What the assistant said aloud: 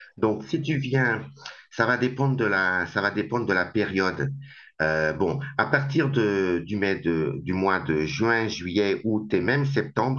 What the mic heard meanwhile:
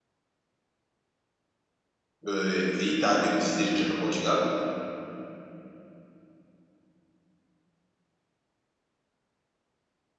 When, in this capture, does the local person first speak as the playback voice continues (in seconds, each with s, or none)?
2.3 s